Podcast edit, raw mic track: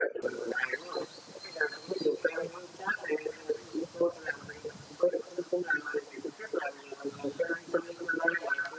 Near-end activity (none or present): none